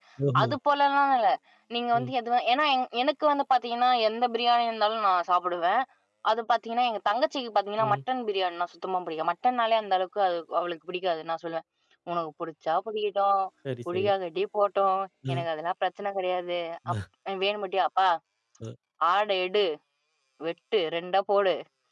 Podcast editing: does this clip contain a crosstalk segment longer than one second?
No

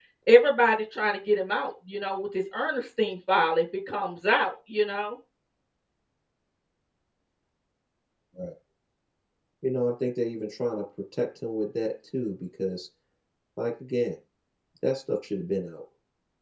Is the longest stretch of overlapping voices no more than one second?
Yes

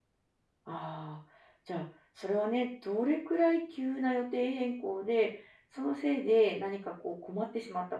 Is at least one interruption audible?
No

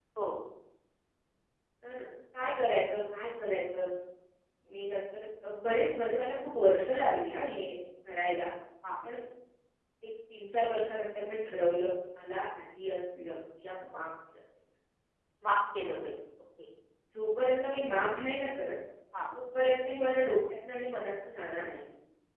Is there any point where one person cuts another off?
No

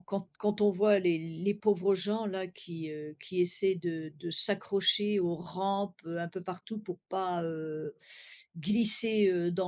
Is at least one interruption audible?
No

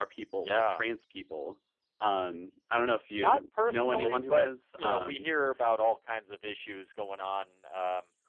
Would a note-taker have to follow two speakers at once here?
Yes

